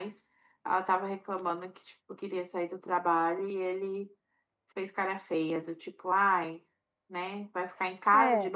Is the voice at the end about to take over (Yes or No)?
No